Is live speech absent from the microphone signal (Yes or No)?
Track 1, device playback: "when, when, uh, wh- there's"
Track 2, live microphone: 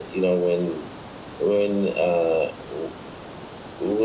Yes